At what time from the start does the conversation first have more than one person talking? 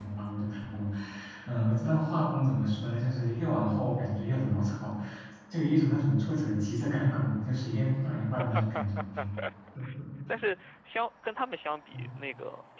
none

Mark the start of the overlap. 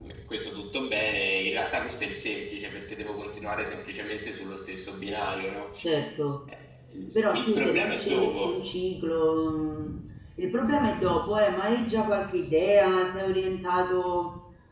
7 s

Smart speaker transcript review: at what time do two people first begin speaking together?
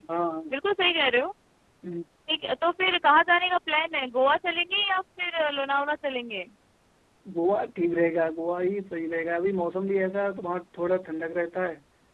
none

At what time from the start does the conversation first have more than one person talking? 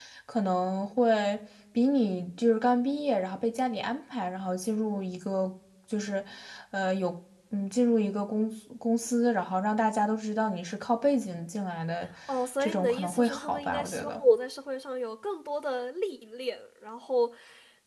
13 s

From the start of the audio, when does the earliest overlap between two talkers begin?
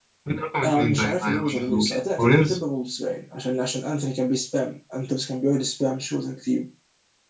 1 s

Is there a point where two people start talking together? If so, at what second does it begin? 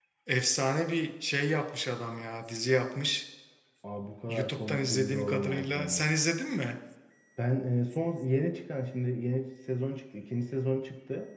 4 s

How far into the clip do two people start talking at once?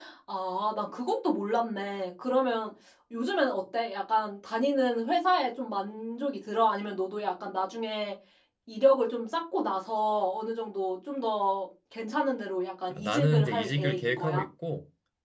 13 s

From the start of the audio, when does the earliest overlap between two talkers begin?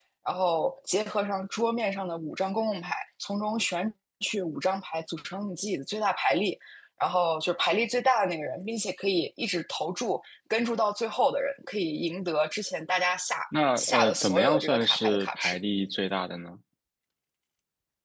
14 s

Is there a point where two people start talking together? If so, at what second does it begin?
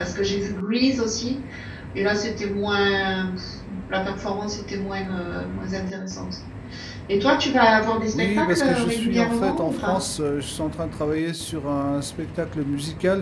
8 s

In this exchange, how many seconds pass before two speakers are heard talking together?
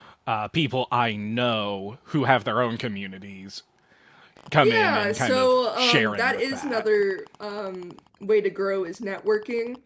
5 s

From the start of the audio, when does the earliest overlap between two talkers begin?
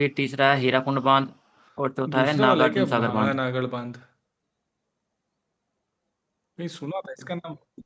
2 s

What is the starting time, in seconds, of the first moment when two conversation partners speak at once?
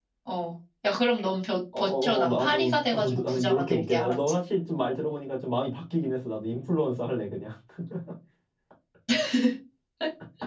2 s

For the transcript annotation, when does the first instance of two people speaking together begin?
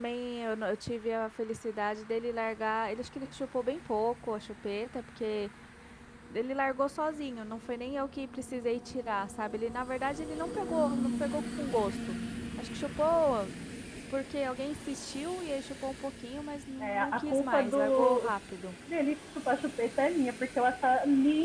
17 s

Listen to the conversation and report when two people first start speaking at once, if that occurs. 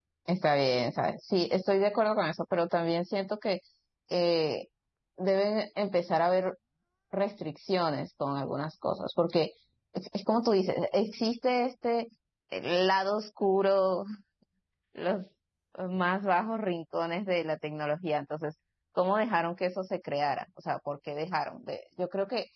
none

